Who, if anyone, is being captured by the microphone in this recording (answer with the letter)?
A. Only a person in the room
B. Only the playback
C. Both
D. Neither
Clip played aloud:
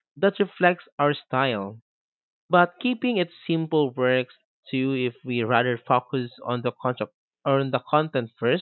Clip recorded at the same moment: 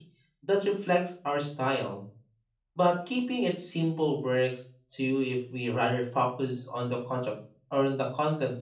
B